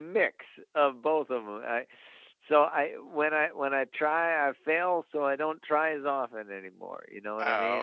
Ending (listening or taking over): taking over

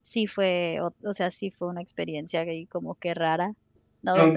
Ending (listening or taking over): listening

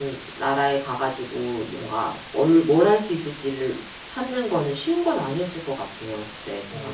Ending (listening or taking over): listening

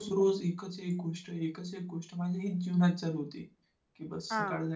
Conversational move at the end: listening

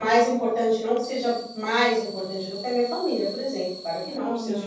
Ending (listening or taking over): listening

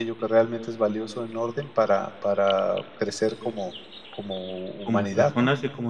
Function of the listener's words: taking over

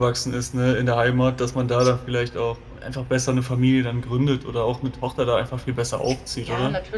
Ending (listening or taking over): taking over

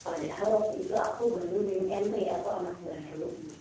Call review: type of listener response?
taking over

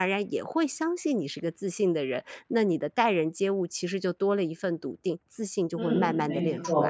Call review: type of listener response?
taking over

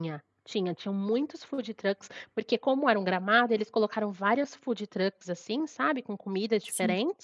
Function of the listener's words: listening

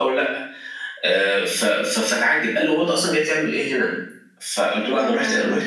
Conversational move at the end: listening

